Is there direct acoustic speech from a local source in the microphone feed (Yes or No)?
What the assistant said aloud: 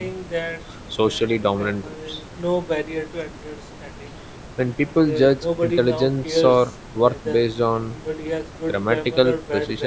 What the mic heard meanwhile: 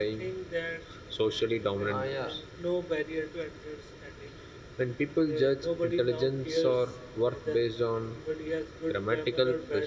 Yes